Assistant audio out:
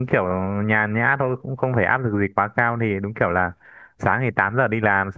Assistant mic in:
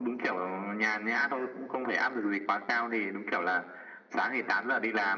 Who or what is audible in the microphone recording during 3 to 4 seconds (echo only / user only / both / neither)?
echo only